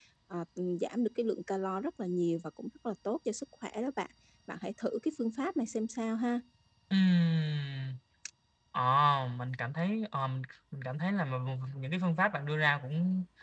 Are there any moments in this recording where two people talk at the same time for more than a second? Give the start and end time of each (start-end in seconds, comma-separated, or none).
none